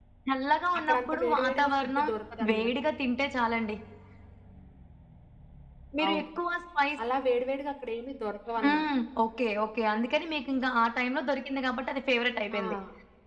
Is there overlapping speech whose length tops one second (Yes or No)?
Yes